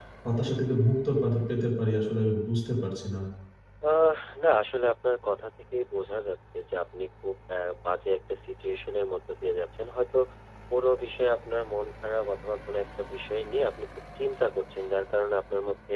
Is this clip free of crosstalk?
Yes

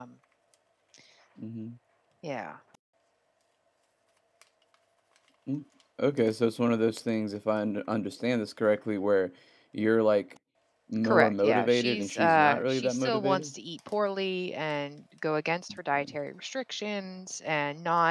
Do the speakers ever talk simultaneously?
Yes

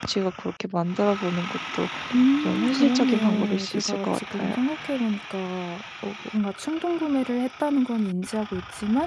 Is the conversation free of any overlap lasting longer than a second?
No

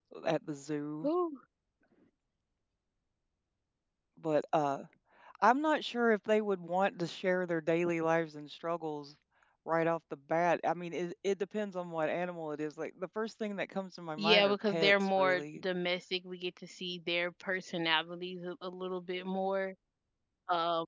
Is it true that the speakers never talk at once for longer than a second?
No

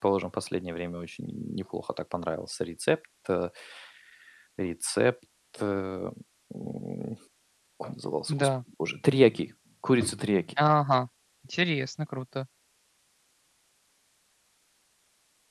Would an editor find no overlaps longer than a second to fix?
Yes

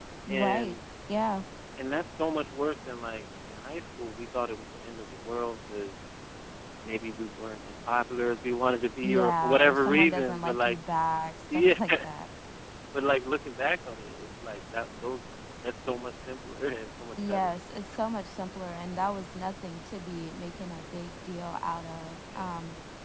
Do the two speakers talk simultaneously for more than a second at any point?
Yes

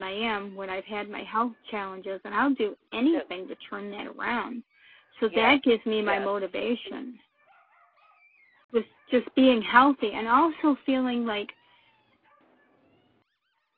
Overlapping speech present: Yes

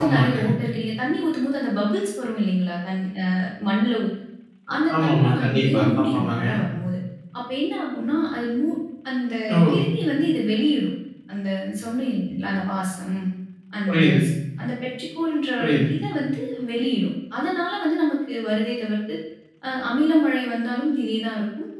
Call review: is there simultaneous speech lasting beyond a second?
Yes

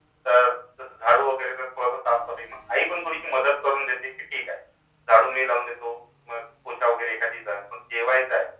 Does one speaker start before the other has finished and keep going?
No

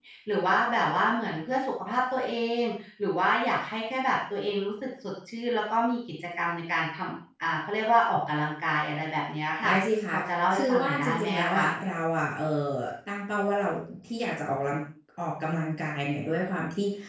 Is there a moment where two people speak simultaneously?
Yes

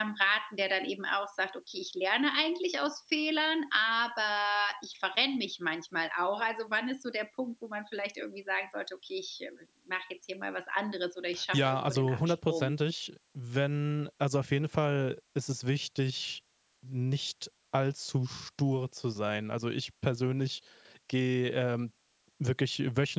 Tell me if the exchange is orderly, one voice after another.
No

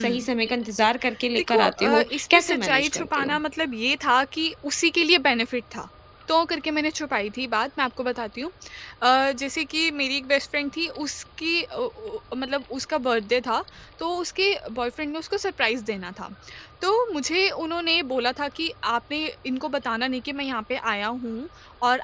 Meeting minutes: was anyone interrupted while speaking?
Yes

